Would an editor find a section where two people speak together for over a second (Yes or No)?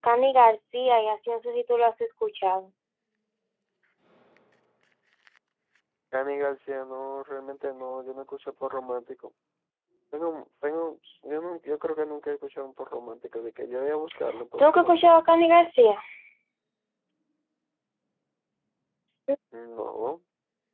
No